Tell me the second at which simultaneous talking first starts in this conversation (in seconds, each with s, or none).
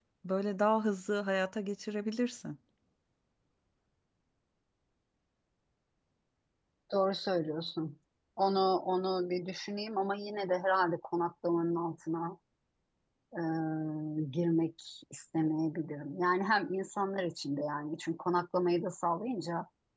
none